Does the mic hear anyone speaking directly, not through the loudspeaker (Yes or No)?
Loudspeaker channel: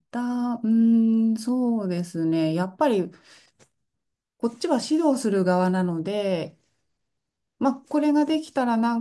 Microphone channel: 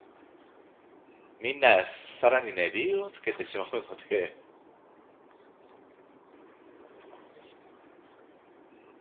Yes